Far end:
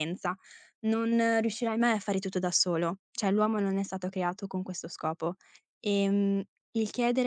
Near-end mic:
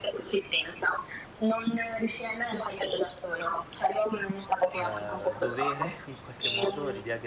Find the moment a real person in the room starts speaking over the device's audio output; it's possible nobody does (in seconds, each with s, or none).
4.7 s